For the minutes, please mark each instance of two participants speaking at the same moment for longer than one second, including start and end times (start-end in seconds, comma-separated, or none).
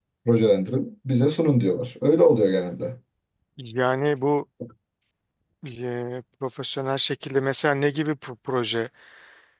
none